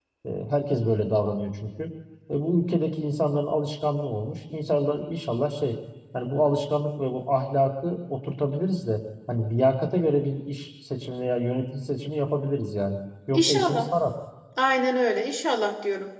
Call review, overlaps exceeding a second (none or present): none